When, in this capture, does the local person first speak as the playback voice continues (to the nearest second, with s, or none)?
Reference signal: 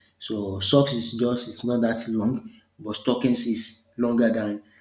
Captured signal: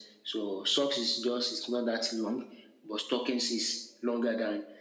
none